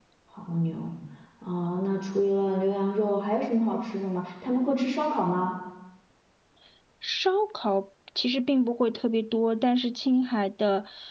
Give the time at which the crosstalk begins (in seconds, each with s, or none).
none